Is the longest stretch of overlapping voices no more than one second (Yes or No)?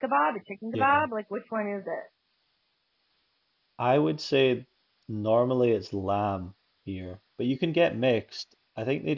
Yes